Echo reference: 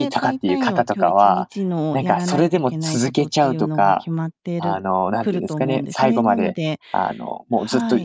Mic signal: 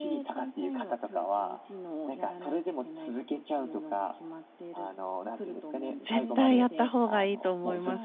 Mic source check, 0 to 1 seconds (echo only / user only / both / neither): echo only